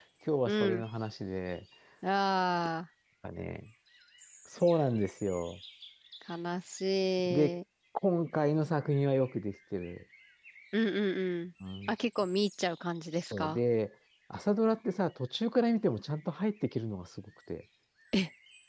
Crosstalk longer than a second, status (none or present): none